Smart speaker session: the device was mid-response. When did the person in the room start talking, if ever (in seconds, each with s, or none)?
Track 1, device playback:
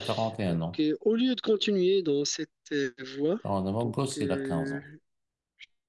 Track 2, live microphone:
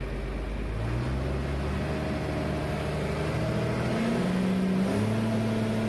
none